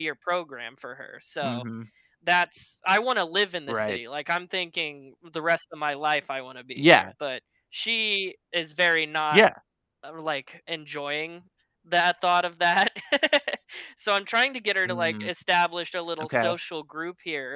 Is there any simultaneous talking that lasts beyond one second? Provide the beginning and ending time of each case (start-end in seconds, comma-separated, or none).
none